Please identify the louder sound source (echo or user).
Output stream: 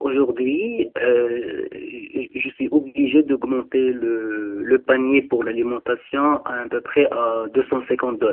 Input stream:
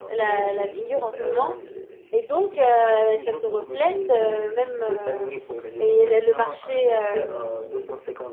user